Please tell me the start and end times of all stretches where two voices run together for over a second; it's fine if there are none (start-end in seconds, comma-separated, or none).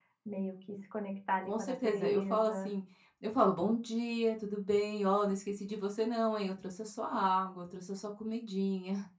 1.4-2.7